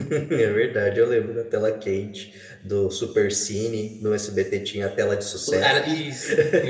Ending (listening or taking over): taking over